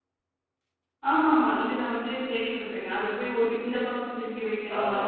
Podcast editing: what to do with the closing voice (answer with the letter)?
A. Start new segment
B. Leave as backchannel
A